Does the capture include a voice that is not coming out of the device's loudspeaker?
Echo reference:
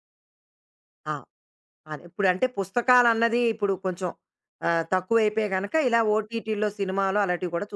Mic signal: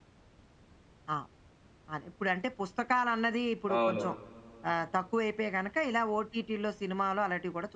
Yes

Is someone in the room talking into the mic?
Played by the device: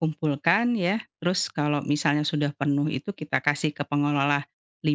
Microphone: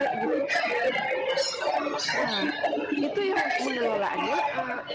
Yes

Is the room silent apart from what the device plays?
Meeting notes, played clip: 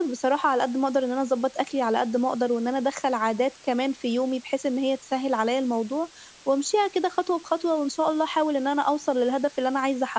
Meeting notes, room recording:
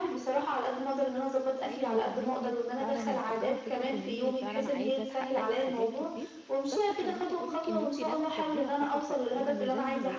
No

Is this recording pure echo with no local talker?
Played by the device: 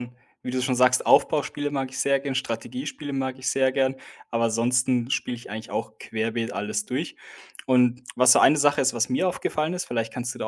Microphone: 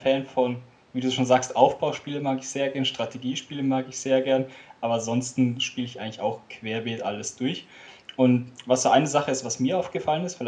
Yes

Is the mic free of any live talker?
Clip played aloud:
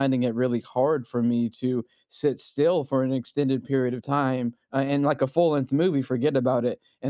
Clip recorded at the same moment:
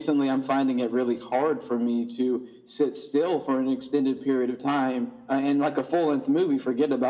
Yes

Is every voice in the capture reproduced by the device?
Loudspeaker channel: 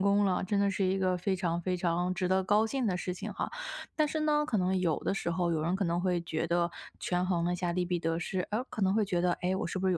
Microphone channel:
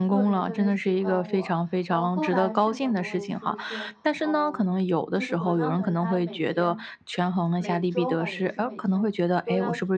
No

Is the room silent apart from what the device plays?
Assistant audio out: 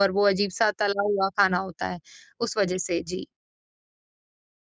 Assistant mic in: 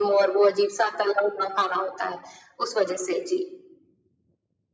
Yes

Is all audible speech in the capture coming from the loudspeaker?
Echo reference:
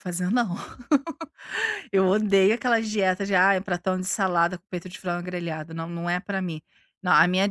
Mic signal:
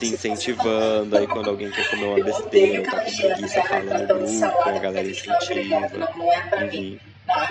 No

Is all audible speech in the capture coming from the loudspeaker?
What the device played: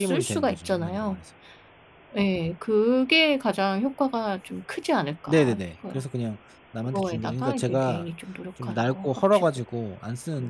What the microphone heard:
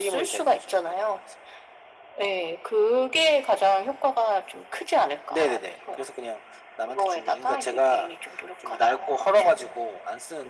Yes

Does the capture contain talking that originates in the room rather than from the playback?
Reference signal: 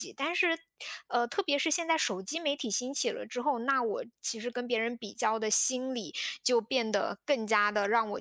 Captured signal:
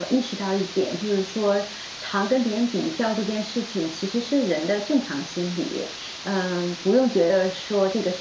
Yes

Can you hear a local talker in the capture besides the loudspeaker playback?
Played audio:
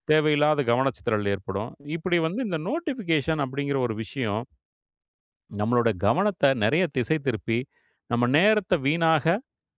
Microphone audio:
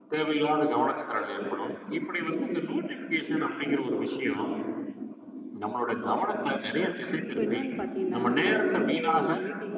Yes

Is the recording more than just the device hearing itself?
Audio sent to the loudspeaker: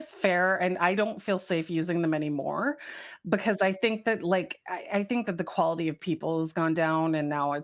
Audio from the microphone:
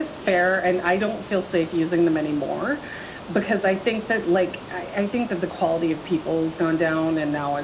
No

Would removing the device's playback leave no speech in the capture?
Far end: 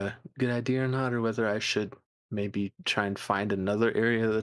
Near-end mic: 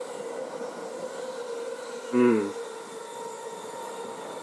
No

